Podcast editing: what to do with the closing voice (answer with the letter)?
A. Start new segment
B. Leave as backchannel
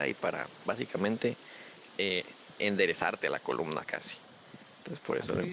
A